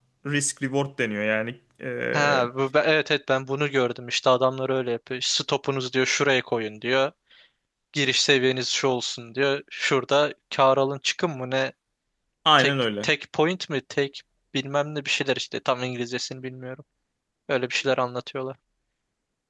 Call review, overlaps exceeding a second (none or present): none